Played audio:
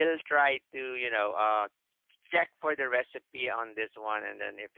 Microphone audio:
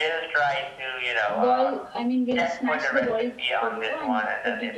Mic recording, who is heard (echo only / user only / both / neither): both